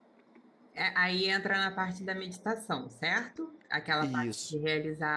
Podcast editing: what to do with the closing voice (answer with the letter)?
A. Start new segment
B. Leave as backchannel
B